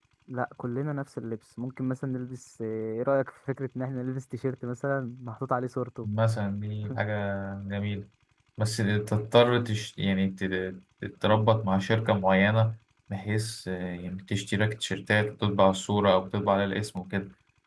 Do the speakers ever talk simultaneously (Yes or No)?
No